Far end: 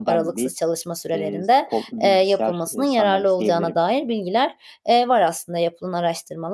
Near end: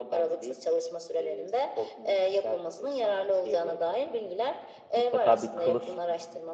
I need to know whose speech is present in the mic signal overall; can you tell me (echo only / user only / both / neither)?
both